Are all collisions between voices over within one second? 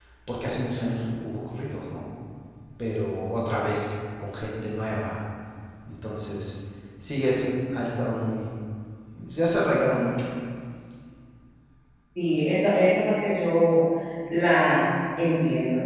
Yes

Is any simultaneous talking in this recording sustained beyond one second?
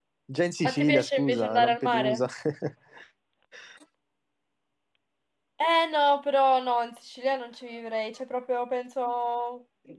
Yes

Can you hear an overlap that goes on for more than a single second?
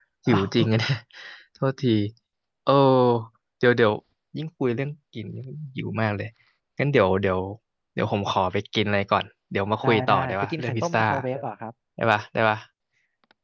Yes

